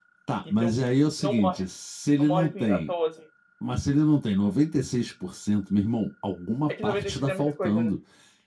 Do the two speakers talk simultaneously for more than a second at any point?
Yes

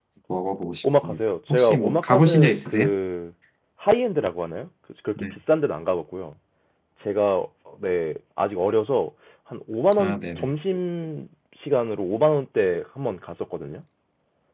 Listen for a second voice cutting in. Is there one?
Yes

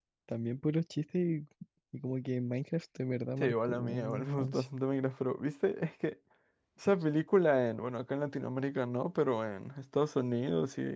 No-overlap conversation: No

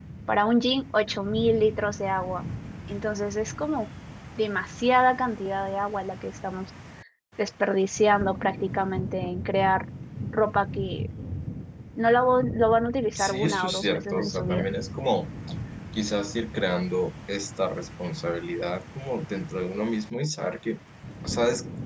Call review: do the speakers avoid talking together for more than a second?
No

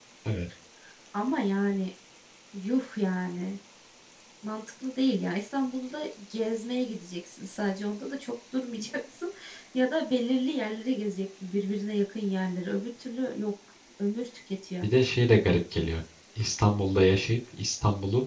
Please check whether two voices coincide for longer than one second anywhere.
No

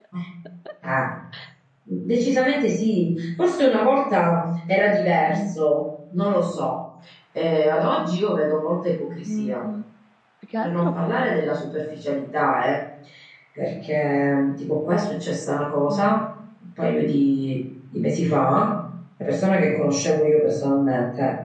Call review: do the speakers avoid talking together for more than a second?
Yes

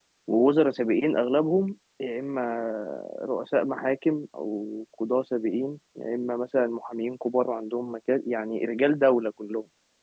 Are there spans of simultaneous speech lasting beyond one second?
No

